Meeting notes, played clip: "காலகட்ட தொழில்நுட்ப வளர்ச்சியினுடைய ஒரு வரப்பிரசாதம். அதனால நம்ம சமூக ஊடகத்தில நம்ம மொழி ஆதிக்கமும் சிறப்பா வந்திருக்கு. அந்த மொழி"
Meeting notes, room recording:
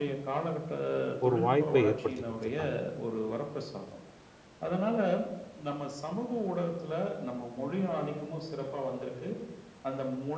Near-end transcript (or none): ஒரு வாய்ப்பை ஏற்படுத்தி குடுத்துருக்காங்க.